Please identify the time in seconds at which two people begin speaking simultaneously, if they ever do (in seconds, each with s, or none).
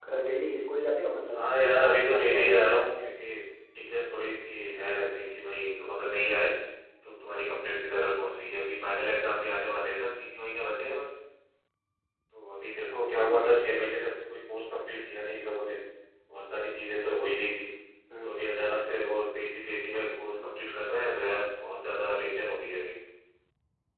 1.3 s